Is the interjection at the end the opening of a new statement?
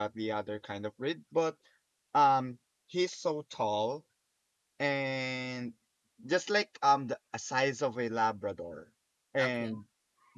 No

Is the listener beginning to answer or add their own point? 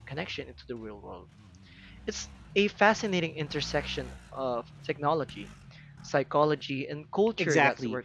Yes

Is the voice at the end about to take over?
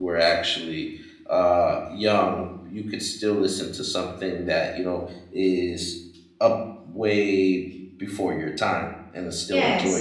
Yes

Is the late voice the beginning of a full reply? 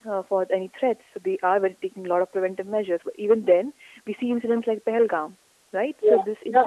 No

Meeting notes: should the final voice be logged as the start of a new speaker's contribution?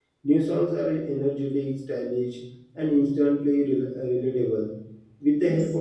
No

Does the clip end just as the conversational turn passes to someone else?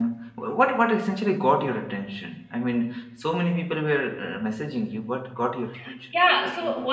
Yes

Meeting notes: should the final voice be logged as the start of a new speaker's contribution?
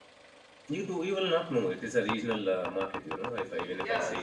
Yes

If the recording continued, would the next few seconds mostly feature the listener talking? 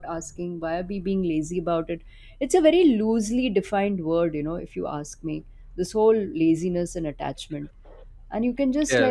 No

